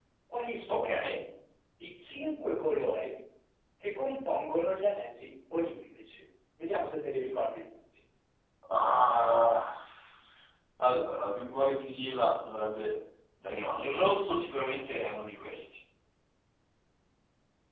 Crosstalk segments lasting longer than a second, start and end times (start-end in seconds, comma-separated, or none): none